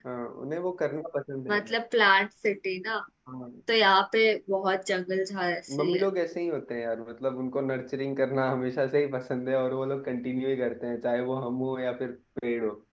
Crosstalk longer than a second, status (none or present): none